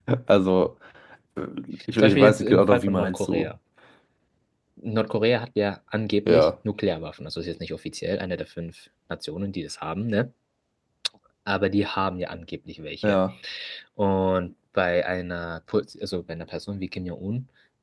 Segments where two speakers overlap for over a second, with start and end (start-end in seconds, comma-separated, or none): 2.0-3.5